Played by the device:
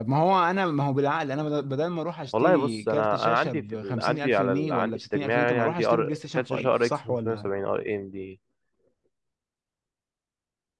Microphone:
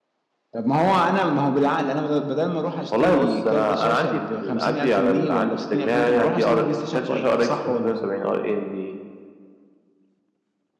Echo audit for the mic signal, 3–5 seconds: echo only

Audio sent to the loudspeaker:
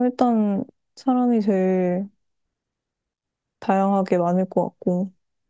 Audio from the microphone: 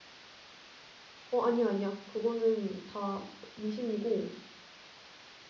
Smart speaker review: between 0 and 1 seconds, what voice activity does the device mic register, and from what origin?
neither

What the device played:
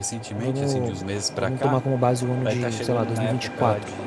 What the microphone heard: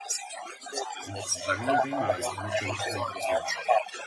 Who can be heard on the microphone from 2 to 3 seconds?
both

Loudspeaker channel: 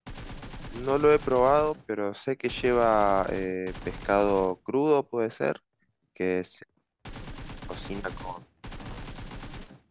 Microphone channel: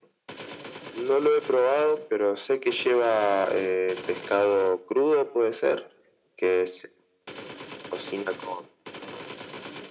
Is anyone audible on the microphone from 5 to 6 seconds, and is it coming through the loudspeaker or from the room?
echo only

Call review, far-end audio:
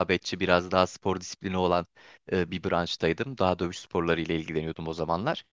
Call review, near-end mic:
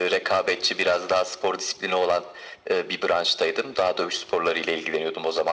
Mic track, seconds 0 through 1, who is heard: echo only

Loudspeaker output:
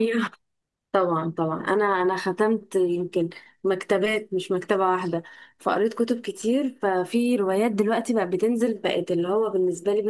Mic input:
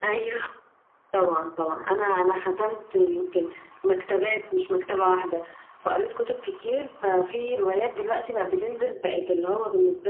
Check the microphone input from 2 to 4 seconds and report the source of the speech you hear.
echo only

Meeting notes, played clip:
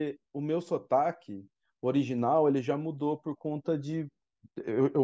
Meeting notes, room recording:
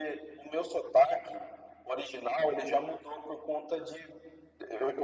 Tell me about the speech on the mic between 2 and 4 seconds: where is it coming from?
echo only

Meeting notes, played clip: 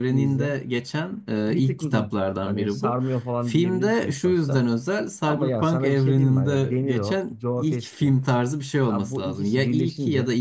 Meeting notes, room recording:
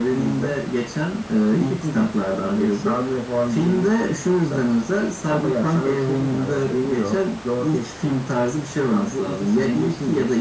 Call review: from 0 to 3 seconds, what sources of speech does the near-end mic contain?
echo only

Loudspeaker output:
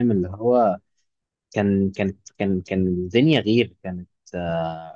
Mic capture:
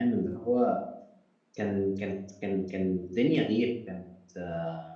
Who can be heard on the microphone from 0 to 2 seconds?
echo only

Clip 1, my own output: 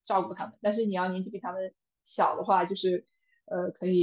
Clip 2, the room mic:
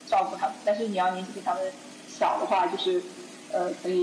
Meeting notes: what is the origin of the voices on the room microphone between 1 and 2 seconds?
echo only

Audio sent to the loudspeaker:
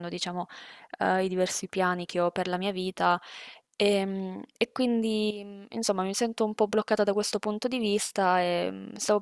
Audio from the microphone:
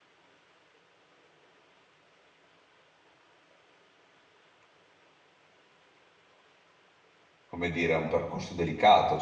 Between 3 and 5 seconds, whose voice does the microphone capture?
neither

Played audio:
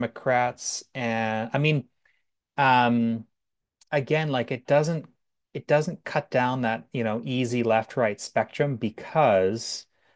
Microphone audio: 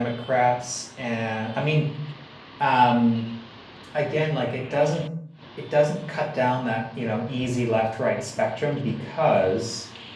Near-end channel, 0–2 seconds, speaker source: echo only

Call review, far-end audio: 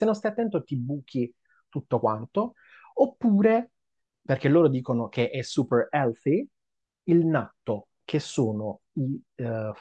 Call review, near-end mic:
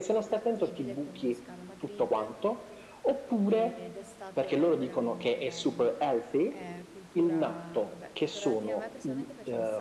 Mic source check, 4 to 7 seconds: both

